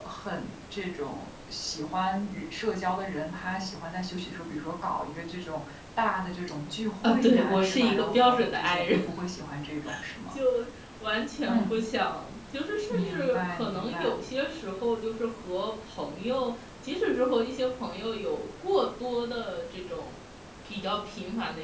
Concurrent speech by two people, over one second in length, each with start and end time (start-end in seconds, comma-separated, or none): 7.0-9.0, 12.9-14.2